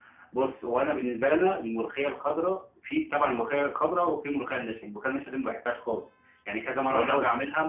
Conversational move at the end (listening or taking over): listening